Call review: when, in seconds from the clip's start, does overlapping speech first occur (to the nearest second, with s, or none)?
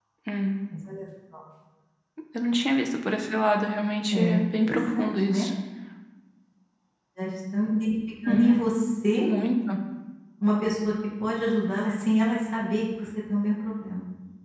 4 s